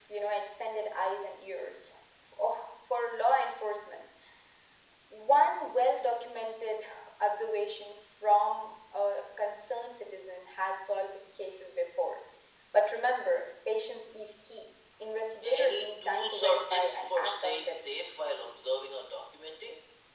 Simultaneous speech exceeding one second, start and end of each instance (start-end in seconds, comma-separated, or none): 15.4-18.0